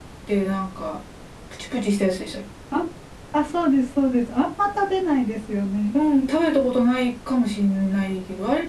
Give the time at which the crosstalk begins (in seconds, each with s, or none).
none